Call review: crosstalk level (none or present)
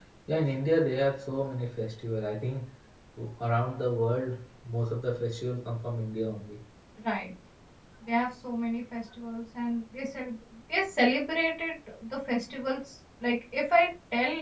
none